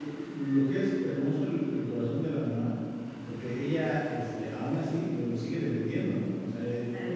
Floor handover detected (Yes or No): No